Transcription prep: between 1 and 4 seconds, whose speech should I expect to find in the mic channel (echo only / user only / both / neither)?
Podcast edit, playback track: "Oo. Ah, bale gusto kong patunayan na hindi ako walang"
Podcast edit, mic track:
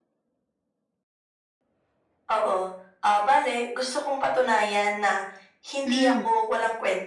echo only